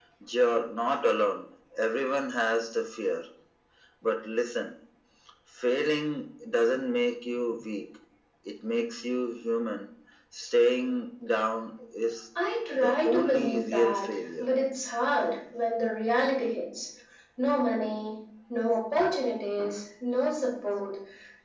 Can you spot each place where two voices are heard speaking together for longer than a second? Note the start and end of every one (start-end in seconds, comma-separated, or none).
12.7-14.5